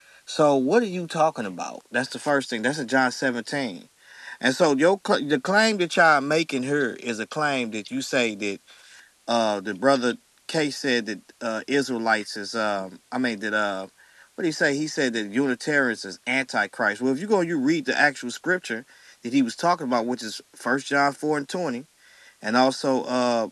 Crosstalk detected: No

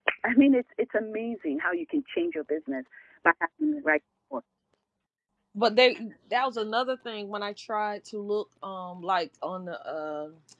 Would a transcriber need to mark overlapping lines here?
No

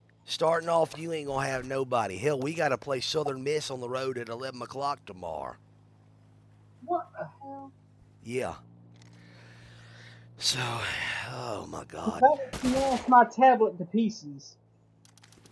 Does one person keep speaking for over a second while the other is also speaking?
No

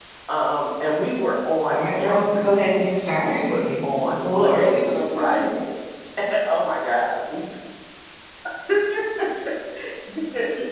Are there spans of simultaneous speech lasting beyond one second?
Yes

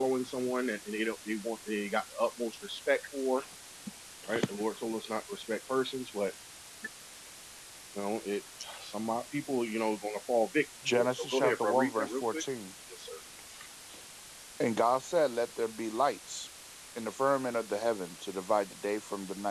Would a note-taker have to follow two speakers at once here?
Yes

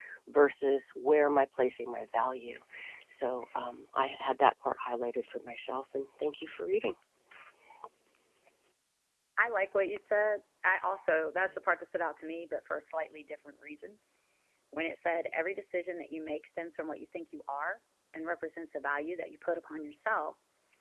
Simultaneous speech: No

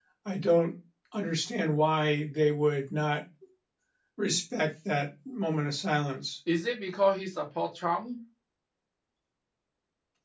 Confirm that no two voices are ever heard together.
Yes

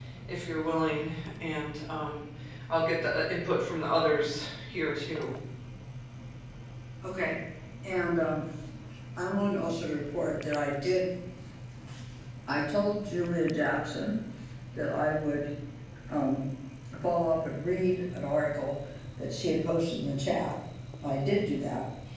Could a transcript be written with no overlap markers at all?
Yes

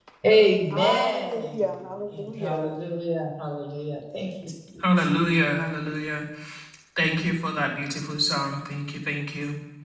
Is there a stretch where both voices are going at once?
Yes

